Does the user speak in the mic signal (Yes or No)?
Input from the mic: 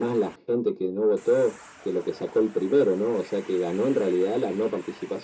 No